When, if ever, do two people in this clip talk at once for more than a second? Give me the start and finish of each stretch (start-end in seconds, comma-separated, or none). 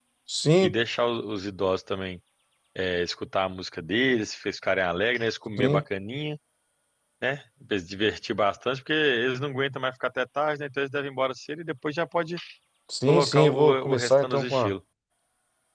13.1-14.7